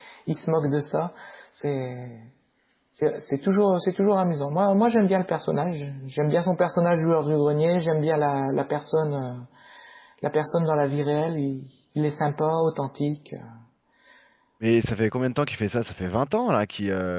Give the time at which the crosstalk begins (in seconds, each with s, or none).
none